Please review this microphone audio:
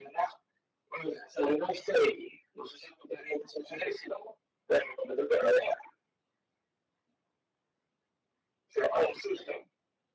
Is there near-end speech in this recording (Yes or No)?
No